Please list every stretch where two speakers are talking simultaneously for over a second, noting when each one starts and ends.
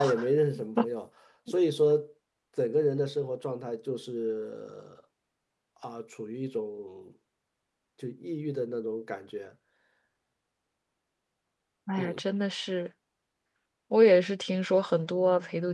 none

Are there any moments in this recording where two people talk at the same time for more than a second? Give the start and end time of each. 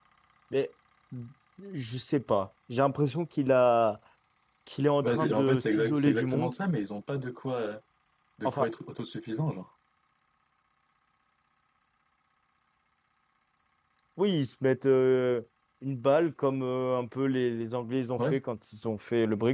5.0-6.5

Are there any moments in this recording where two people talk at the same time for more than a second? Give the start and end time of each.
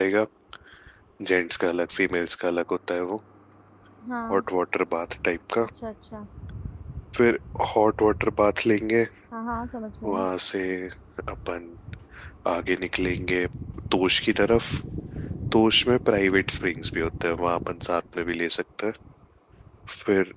none

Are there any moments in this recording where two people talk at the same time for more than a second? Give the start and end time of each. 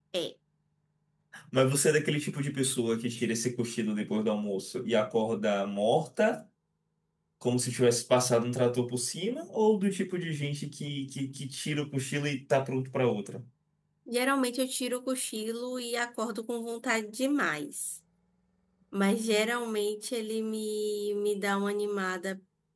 none

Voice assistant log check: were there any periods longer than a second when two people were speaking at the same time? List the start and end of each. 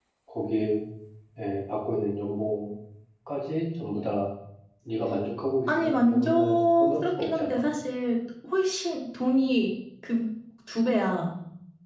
5.8-7.6

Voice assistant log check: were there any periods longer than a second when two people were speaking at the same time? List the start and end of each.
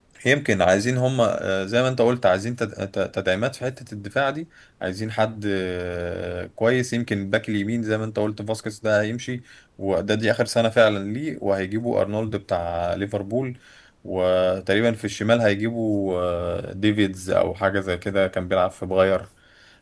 none

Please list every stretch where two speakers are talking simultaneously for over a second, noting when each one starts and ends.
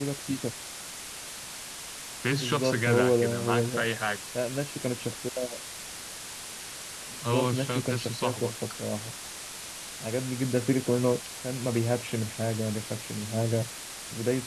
2.3-3.8, 7.2-8.5

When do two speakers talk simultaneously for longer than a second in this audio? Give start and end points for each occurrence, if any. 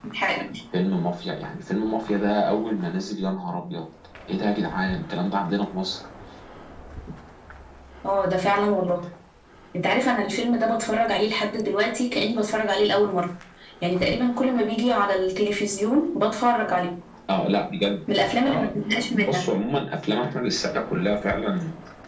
none

